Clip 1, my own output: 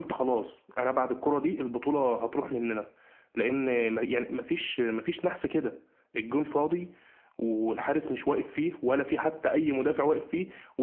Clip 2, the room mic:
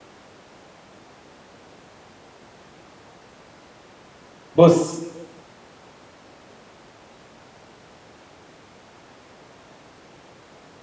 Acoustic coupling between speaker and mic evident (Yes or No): No